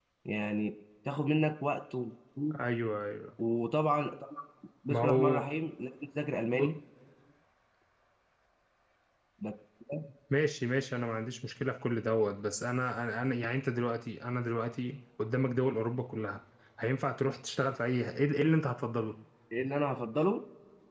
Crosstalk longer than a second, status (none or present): none